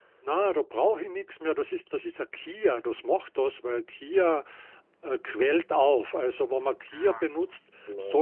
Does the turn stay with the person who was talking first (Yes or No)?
Yes